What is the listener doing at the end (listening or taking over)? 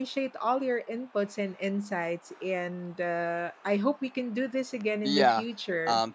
taking over